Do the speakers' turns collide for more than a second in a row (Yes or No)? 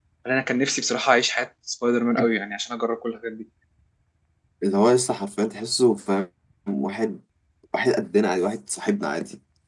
No